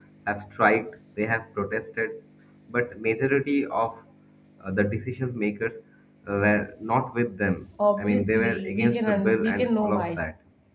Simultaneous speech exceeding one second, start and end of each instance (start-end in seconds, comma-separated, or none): 8.0-10.2